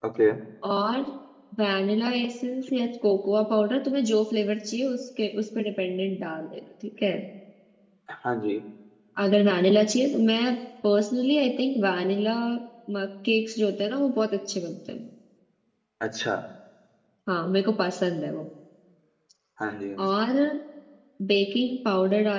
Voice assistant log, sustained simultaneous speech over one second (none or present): none